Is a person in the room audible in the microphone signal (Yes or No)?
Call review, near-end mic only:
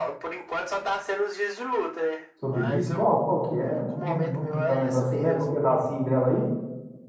Yes